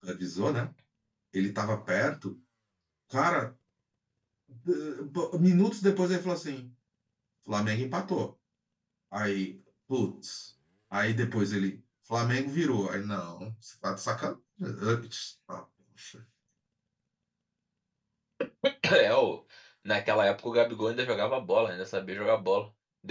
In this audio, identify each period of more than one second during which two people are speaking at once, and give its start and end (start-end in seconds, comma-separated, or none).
none